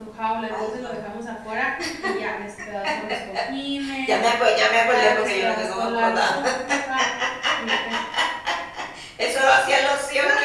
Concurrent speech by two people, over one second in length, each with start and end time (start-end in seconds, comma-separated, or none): 4.7-6.3